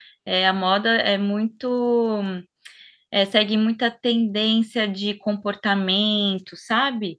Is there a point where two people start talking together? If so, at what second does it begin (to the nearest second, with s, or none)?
none